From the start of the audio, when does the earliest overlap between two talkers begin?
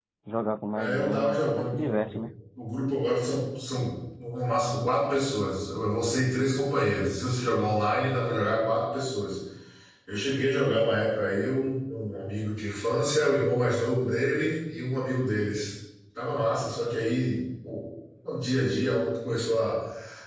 1 s

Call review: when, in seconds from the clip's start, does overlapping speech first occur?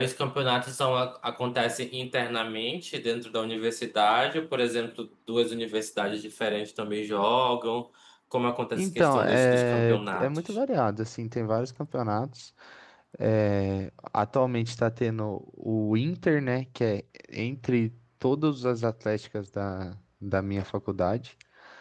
9 s

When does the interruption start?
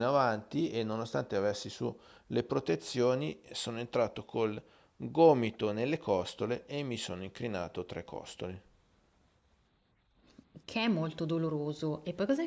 none

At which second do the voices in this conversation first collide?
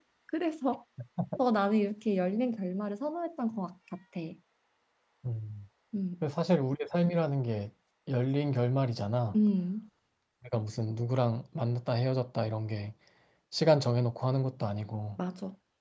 none

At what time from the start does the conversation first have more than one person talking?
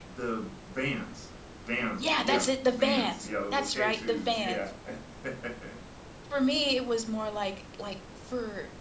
2 s

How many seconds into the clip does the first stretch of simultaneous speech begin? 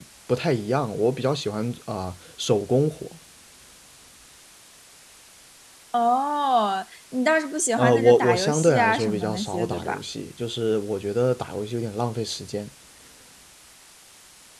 8 s

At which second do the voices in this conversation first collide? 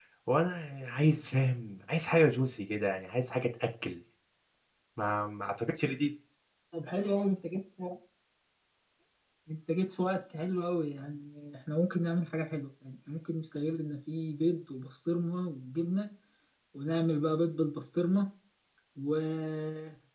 none

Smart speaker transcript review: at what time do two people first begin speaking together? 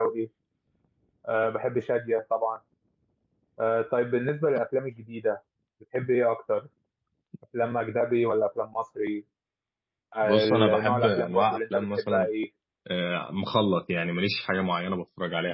10 s

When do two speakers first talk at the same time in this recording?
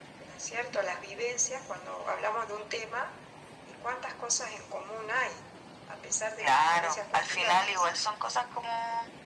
6 s

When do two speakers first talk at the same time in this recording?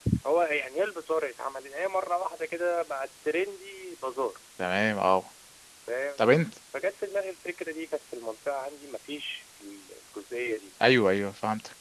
none

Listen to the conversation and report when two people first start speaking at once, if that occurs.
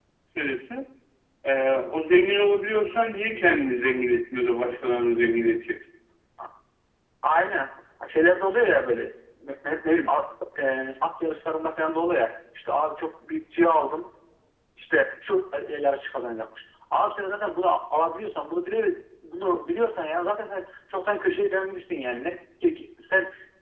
none

